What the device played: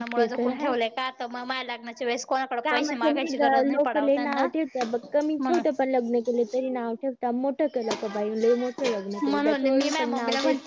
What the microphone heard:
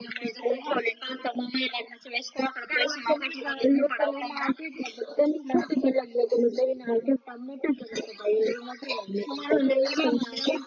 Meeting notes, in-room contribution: none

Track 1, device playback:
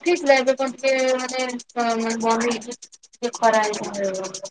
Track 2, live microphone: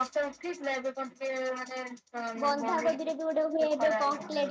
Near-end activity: present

